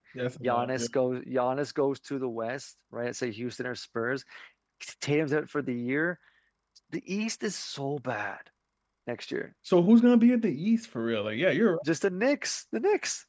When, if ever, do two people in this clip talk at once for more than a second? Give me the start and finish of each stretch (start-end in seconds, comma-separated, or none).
none